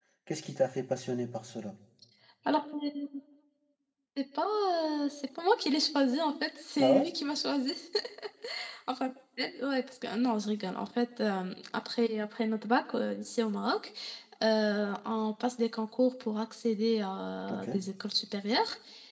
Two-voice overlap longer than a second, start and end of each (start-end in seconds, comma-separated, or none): none